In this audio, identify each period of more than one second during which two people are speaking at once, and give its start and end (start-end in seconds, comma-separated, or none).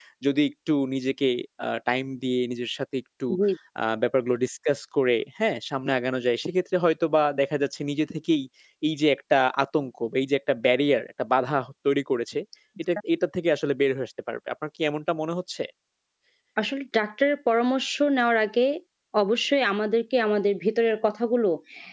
none